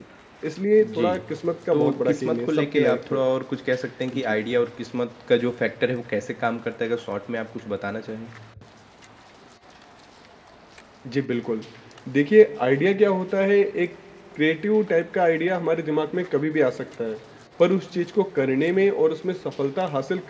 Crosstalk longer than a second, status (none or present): present